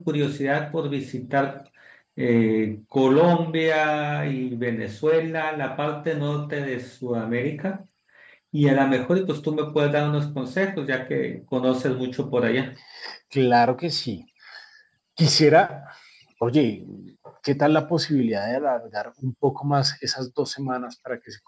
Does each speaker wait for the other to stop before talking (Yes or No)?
Yes